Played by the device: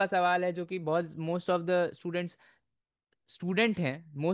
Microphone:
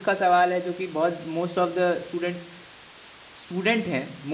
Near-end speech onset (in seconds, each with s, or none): none